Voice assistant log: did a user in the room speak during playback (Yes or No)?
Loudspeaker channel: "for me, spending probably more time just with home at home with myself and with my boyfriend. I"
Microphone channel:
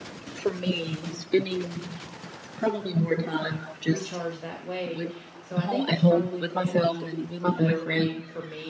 Yes